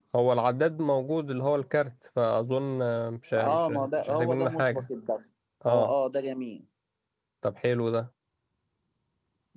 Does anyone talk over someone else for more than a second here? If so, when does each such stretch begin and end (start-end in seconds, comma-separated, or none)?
3.5-4.8